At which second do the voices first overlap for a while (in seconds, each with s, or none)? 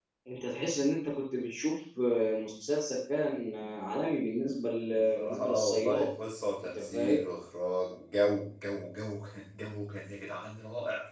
4.8 s